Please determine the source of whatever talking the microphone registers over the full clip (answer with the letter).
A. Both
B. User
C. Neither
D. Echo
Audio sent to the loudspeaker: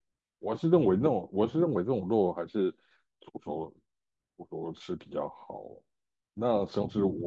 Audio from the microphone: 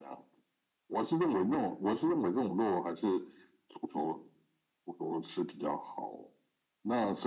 D